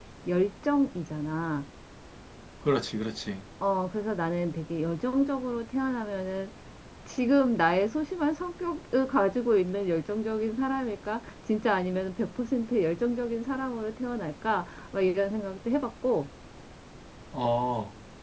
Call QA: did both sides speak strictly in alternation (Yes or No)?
Yes